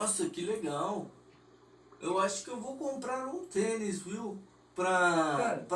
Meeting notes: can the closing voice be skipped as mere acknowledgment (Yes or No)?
Yes